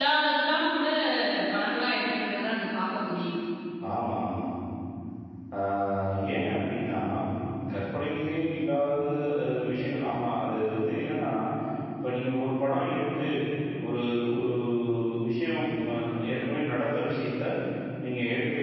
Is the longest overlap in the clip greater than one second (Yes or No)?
No